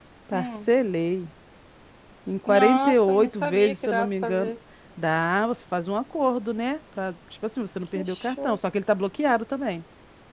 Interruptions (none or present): present